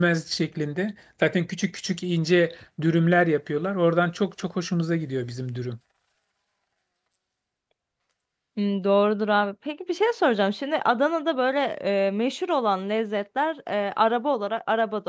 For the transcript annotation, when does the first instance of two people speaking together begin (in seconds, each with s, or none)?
none